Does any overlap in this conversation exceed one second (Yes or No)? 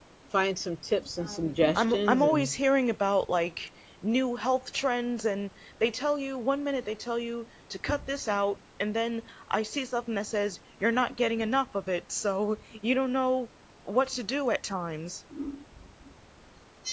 Yes